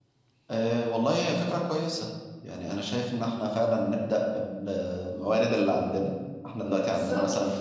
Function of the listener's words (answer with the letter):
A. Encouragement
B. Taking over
A